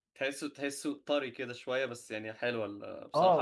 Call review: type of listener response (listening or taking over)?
taking over